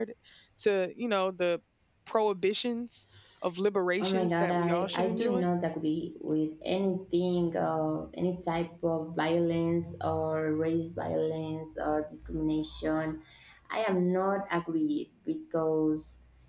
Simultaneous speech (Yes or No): Yes